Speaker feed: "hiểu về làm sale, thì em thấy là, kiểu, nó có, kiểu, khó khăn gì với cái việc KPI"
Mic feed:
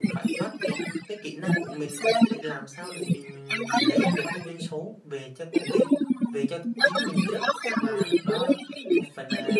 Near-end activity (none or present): present